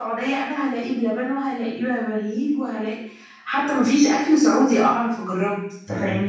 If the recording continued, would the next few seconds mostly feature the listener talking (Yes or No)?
Yes